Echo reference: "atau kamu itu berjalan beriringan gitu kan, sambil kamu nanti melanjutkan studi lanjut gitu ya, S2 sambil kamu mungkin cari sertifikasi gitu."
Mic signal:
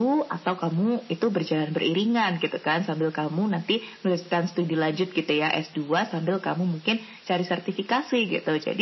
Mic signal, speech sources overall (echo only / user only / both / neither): echo only